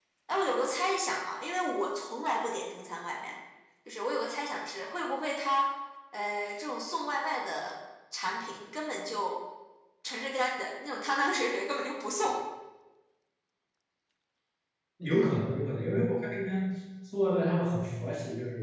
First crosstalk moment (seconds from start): none

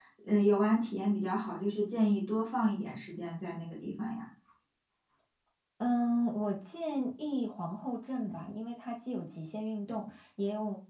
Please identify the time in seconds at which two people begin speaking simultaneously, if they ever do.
none

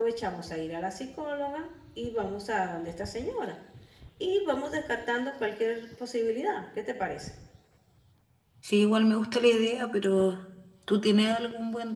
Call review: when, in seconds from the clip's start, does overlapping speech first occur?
none

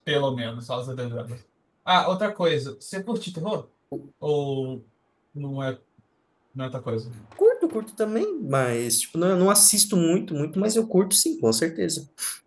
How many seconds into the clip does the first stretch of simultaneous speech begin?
none

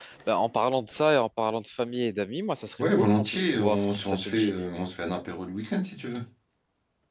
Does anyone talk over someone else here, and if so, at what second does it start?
2.8 s

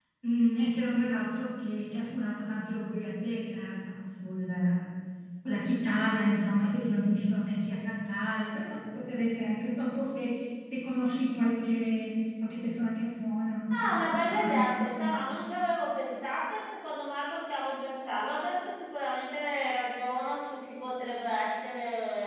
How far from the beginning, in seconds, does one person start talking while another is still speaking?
13.7 s

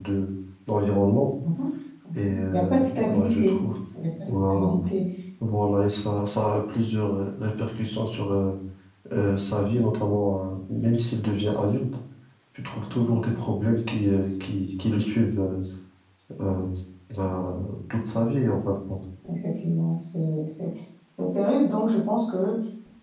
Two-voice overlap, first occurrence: 2.1 s

